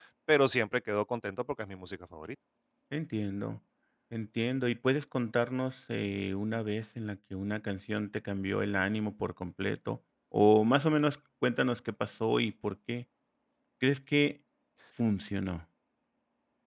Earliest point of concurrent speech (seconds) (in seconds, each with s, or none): none